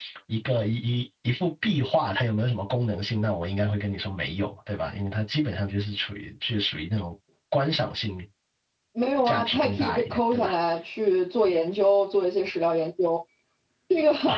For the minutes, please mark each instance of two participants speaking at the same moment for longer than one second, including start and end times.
9.2-10.5

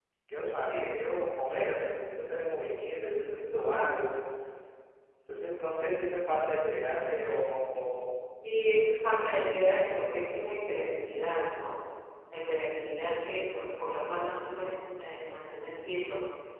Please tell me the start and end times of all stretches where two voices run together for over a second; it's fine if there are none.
none

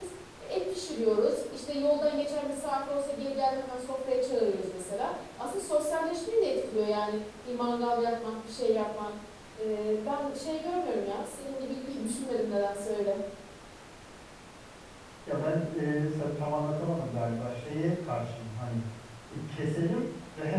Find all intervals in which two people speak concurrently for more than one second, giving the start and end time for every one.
none

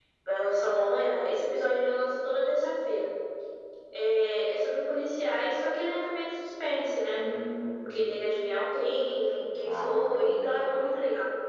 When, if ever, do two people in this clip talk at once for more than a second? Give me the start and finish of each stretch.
9.6-10.9

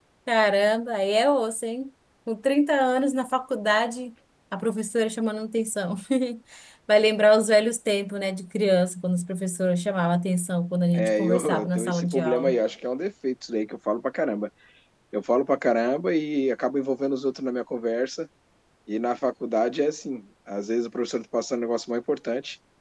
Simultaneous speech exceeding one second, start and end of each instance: 10.9-12.6

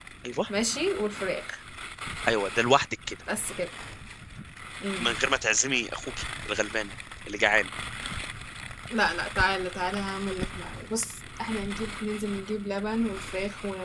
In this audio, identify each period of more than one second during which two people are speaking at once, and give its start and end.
none

